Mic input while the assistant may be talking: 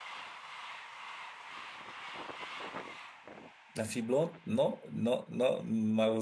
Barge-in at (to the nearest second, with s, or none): 4 s